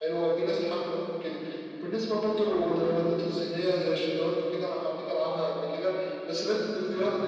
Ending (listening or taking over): listening